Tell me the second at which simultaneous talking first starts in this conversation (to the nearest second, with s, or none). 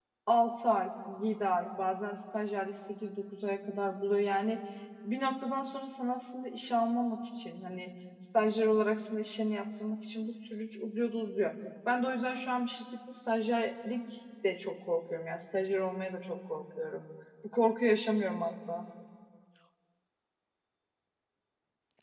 none